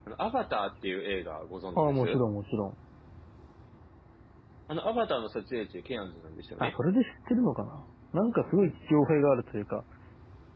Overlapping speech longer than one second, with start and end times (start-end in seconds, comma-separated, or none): none